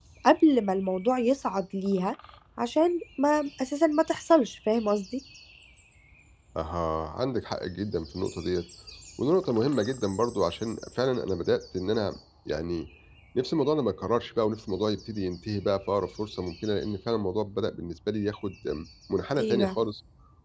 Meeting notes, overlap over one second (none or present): none